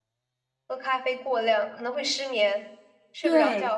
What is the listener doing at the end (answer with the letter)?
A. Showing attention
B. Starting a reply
B